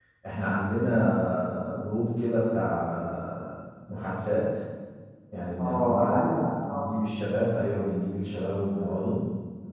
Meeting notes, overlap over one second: present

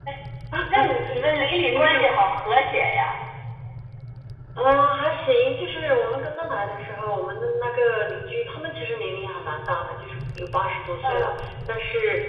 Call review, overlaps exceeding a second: none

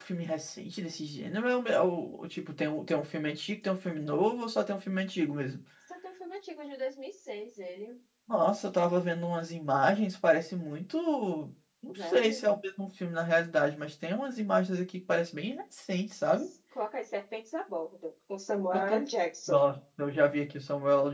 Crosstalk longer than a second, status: none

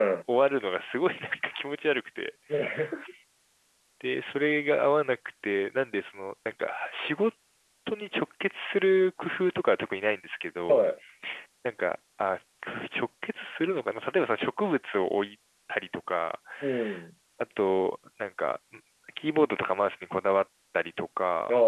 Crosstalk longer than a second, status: none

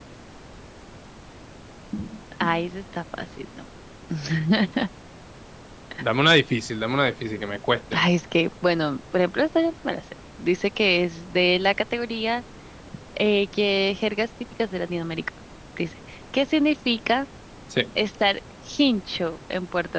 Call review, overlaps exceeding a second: none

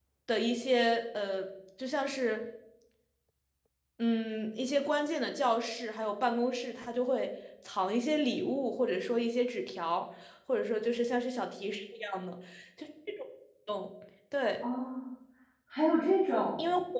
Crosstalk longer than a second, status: none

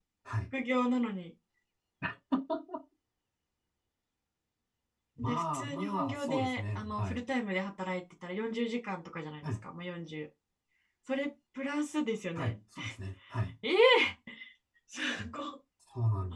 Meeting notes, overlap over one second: present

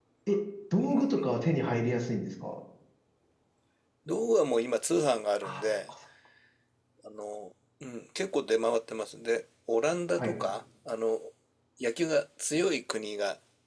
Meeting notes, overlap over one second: none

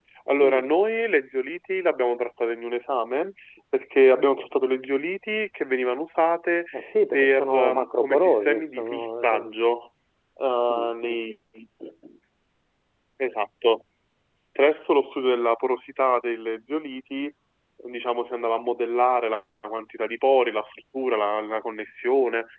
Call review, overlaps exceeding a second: present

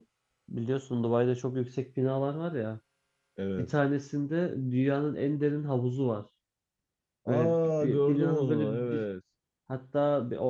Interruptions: present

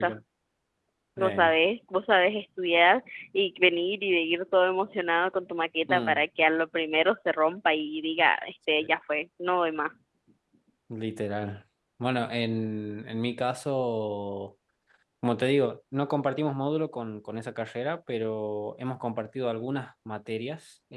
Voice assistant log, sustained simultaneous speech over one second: none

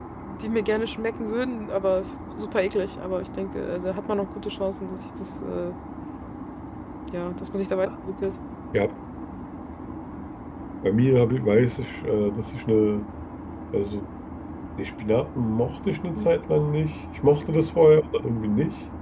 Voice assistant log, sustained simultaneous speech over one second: none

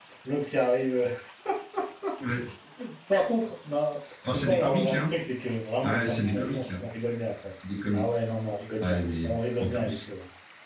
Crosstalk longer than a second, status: present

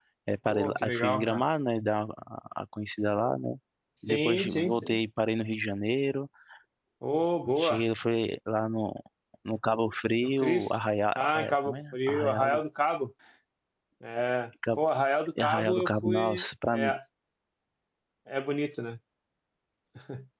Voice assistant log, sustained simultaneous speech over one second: present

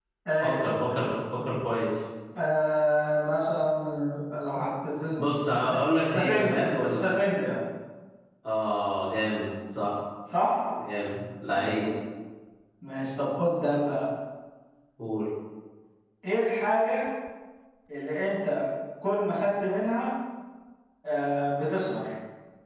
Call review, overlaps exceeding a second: present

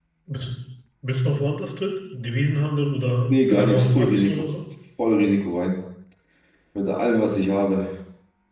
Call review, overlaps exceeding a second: present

